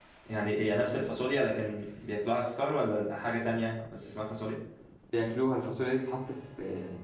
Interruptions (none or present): none